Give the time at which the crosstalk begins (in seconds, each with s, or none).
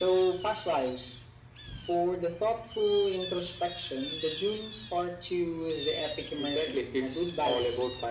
6.4 s